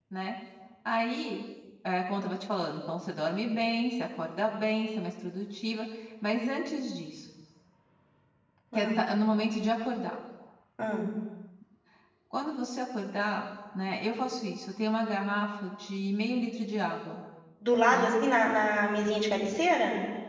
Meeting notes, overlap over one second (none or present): none